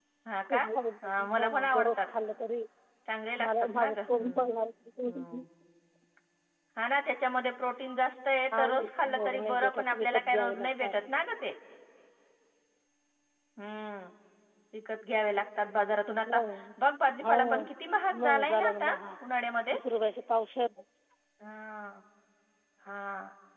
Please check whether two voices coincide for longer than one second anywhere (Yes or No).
Yes